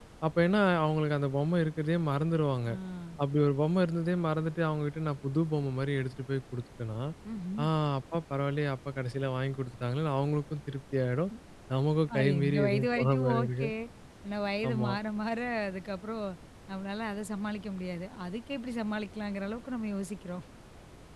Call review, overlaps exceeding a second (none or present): present